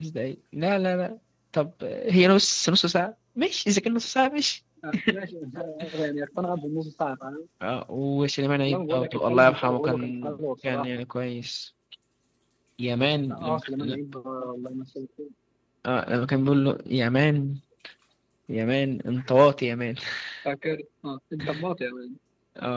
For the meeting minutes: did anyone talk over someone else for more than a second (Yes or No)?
Yes